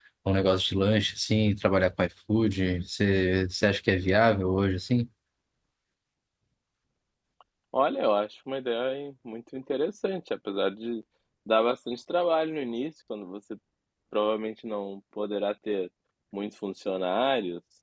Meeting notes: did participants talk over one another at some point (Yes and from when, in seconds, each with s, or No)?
No